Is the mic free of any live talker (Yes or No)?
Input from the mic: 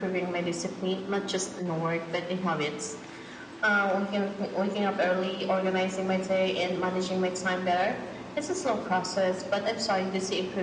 Yes